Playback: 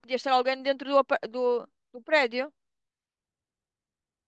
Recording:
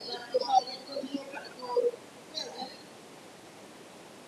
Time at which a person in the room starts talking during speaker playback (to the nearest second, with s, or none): none